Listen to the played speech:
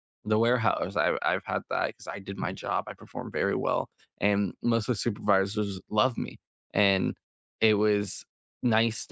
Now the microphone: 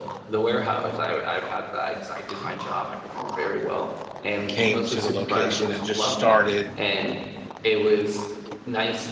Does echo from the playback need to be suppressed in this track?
Yes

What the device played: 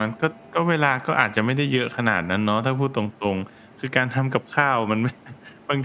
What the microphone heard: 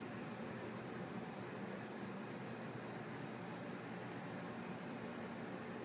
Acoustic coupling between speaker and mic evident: No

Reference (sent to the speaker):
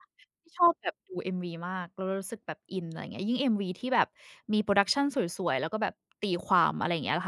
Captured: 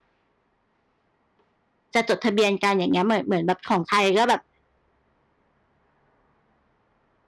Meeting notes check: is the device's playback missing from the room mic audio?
Yes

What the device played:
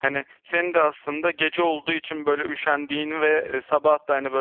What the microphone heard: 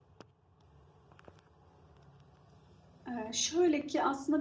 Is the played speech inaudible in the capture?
Yes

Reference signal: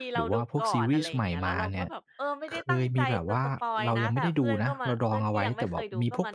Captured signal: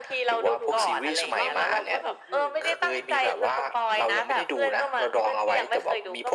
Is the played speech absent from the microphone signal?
No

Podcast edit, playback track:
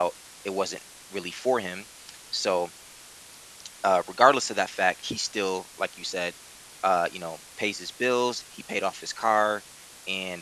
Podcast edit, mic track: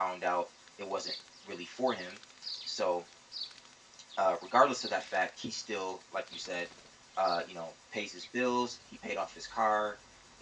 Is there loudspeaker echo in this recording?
Yes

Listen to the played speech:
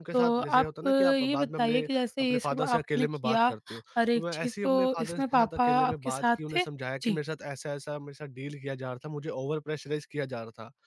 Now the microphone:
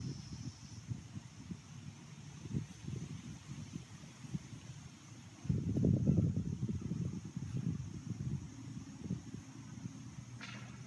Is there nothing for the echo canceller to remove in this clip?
Yes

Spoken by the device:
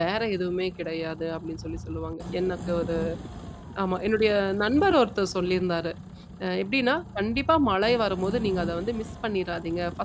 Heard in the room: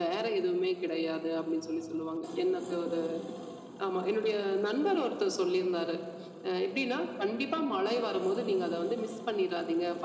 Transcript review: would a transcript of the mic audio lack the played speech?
No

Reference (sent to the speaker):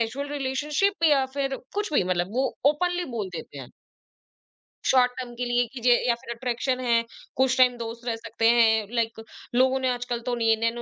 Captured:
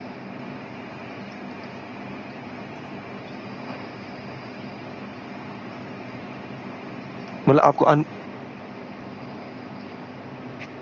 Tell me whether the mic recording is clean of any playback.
Yes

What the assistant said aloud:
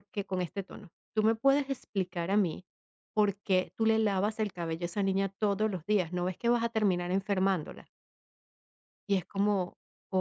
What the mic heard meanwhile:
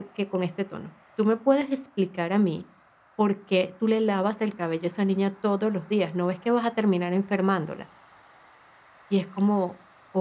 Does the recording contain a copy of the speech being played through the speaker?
Yes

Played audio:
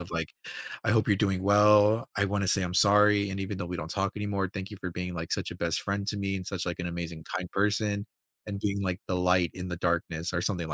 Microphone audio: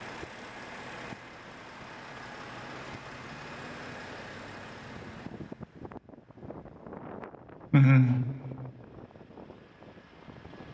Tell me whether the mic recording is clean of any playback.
Yes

